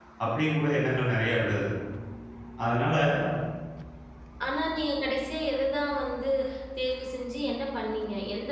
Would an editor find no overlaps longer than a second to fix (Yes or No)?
Yes